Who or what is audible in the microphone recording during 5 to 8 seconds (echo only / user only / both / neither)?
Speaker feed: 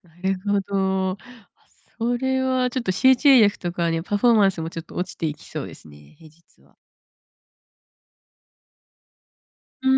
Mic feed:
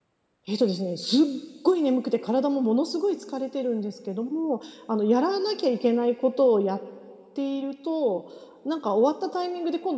user only